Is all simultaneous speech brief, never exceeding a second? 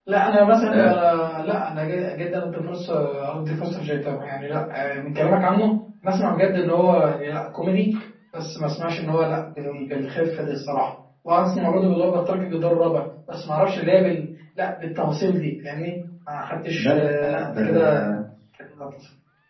No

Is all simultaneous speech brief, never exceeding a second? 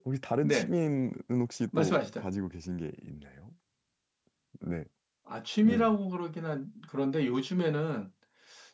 Yes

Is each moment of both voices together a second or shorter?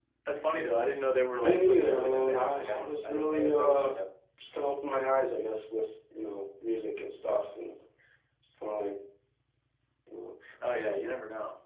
No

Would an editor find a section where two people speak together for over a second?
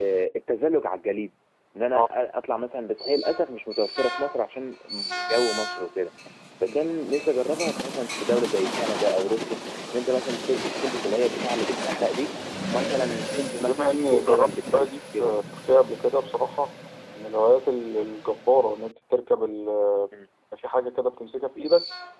Yes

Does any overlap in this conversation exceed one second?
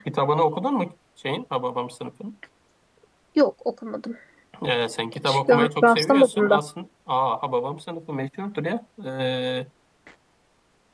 Yes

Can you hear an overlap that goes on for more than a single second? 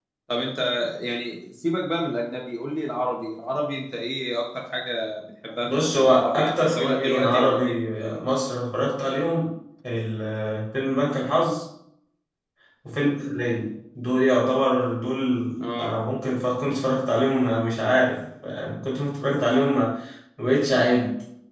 Yes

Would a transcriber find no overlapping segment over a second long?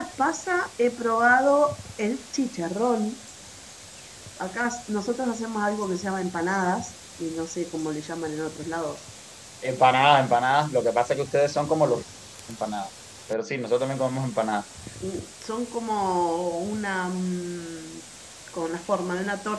Yes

